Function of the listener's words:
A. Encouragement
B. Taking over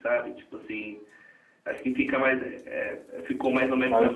A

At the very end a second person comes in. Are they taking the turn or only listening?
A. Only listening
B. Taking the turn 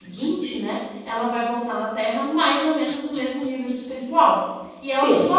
A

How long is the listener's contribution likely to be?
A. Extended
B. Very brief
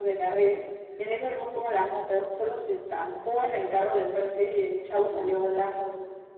B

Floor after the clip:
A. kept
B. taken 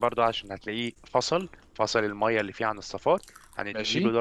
A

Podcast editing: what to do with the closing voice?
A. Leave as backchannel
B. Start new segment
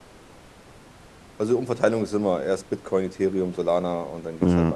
B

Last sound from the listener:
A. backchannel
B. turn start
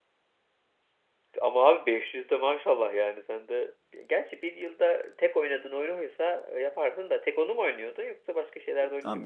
B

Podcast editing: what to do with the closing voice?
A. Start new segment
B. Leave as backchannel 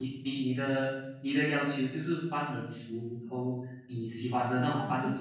B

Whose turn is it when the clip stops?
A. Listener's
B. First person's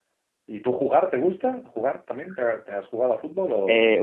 A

